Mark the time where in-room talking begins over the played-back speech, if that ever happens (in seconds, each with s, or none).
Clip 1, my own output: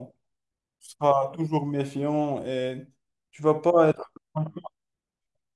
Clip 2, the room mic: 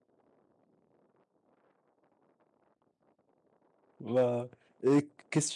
4.0 s